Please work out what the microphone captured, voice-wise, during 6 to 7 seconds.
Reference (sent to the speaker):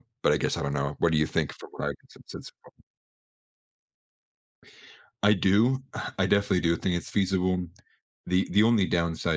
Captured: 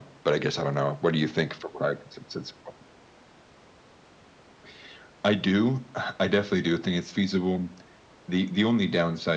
echo only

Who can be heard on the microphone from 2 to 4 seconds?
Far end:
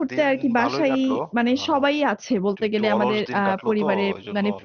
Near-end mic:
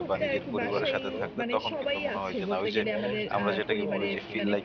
both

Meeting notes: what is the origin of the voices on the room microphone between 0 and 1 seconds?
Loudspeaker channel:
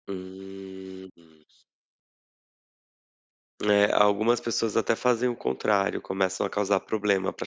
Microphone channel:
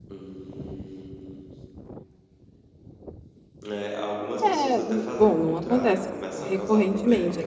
echo only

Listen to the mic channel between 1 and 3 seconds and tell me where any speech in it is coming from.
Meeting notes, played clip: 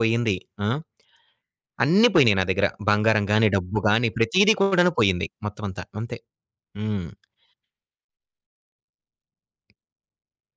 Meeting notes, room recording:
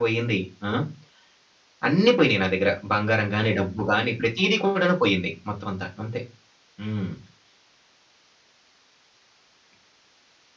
echo only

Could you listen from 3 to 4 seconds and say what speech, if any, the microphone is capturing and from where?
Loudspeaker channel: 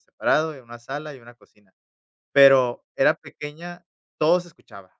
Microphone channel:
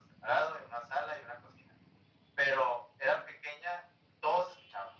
echo only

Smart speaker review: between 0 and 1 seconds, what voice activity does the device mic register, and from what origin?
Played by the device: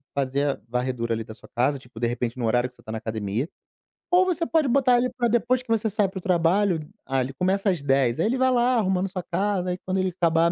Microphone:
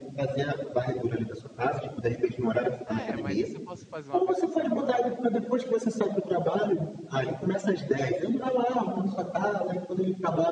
echo only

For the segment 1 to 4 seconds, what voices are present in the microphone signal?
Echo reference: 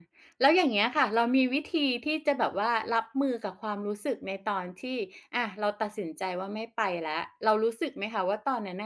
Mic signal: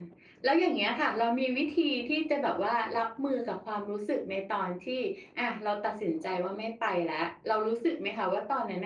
echo only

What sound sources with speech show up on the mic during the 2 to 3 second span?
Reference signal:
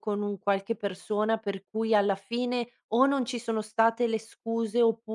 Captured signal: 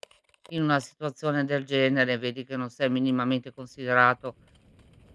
user only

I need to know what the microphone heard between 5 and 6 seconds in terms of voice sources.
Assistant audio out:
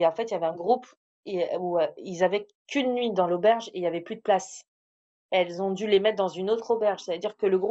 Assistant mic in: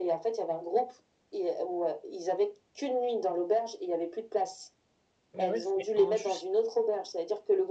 both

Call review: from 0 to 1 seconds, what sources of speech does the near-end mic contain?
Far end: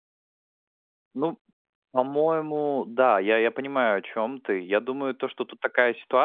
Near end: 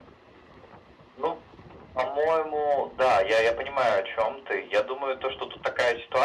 neither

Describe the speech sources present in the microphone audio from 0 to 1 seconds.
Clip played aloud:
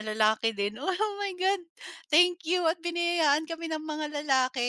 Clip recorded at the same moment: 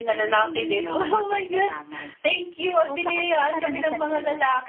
both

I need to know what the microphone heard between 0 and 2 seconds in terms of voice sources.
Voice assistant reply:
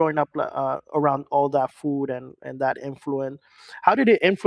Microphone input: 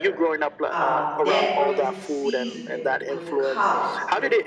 both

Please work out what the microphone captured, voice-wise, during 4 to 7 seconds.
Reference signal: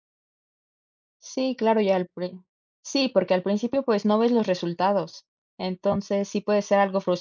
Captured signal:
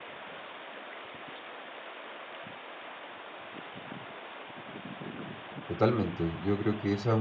user only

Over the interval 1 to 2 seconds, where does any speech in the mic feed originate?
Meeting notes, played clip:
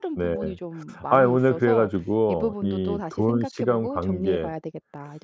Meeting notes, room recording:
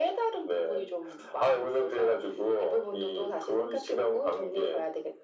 echo only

